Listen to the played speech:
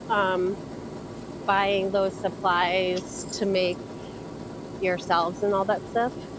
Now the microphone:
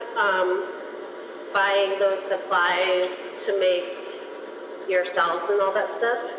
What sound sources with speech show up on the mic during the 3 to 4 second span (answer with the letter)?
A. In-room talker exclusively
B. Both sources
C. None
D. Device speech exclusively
D